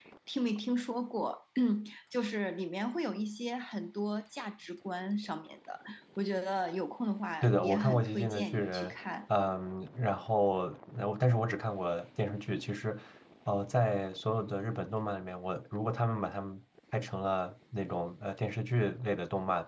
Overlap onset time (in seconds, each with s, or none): 7.4 s